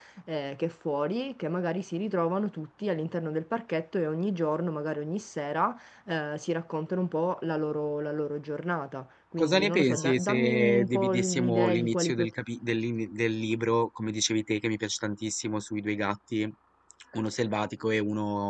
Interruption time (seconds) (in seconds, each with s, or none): 9.4 s